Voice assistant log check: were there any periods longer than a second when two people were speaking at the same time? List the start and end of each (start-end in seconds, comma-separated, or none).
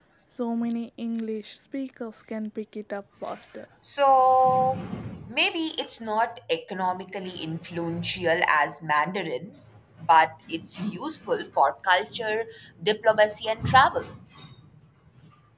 none